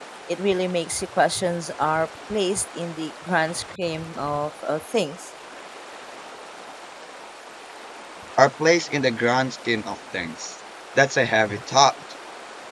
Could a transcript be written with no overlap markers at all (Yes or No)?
Yes